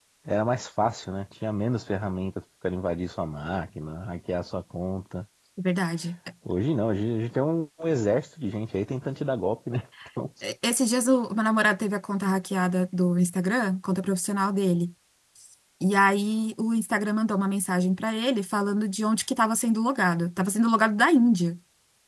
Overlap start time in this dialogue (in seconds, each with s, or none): none